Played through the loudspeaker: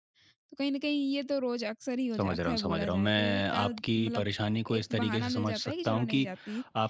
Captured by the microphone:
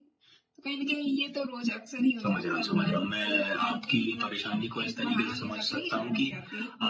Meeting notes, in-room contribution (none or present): none